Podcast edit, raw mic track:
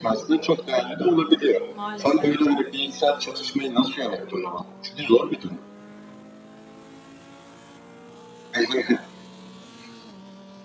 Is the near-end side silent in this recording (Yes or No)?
No